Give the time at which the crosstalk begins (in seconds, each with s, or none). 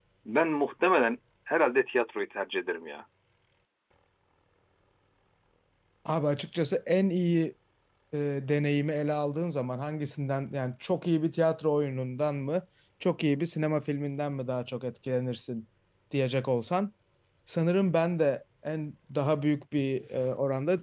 none